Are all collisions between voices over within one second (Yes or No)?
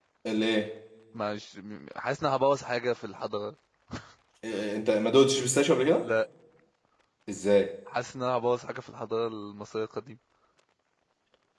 Yes